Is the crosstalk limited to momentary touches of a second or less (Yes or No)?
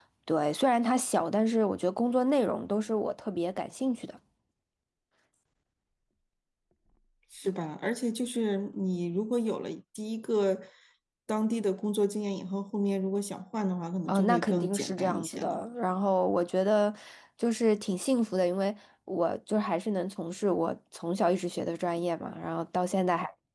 No